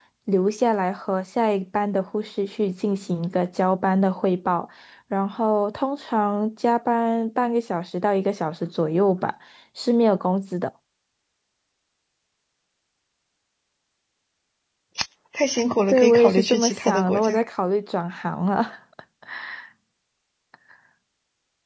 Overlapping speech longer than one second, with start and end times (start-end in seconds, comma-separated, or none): 15.9-17.4